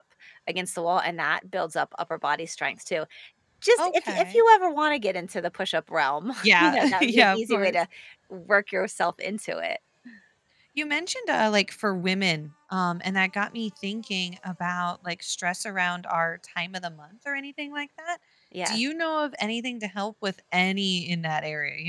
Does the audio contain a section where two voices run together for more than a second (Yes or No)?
Yes